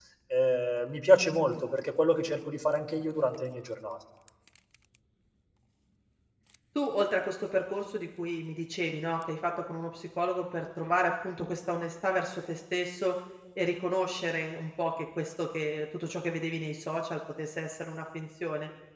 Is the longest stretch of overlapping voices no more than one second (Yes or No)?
Yes